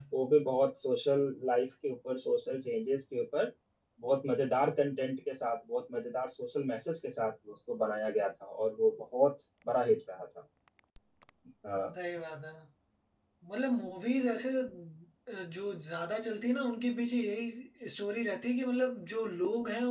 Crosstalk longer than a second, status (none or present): none